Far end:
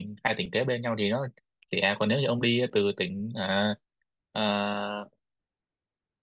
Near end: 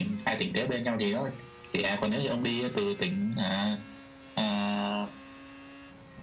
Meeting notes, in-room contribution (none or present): none